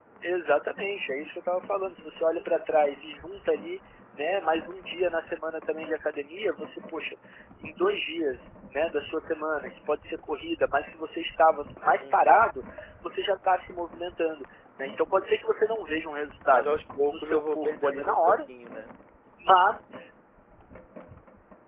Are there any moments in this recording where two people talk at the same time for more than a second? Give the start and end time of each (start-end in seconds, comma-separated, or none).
17.1-18.4